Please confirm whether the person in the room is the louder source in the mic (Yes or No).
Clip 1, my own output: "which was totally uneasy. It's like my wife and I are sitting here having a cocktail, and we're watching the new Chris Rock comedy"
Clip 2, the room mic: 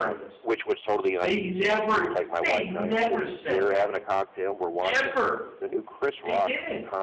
Yes